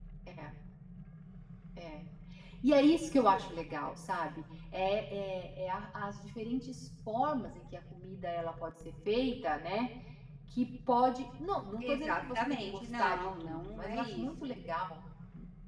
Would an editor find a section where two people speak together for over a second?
Yes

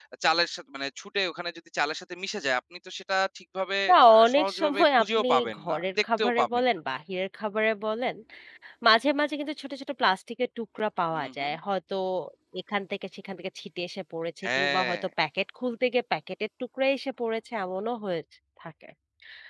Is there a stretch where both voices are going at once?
Yes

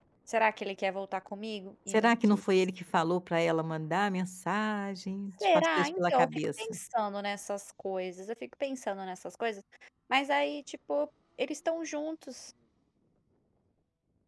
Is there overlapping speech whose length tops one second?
Yes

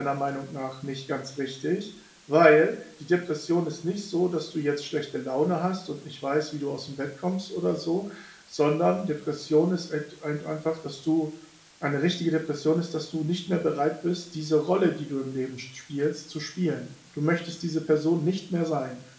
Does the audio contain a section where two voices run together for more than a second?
No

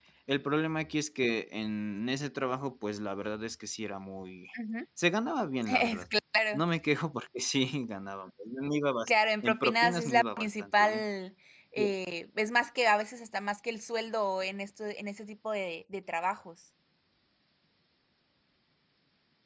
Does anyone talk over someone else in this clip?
Yes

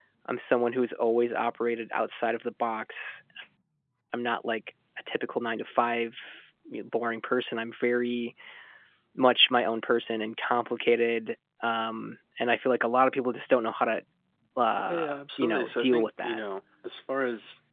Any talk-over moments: Yes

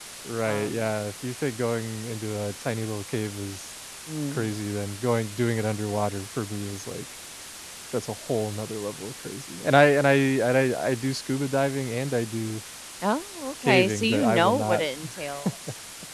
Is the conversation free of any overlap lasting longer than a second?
No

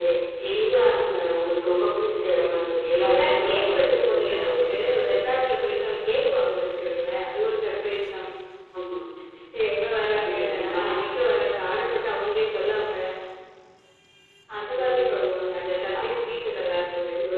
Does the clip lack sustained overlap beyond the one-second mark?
No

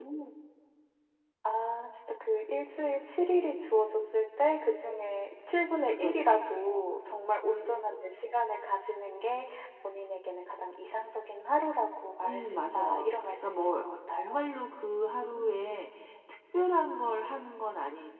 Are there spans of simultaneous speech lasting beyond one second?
Yes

